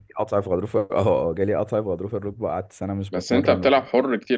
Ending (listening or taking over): taking over